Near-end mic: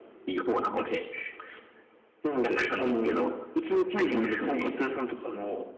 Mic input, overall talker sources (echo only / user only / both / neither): echo only